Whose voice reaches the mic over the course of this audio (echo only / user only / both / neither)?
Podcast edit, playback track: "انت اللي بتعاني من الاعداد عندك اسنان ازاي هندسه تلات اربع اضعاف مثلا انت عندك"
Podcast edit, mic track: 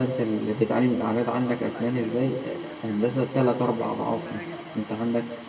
both